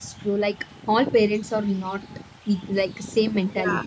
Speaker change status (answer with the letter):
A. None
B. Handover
A